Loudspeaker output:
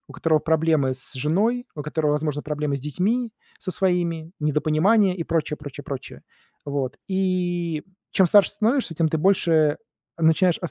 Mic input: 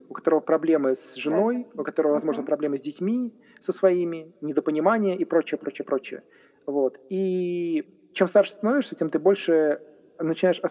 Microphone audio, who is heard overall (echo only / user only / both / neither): both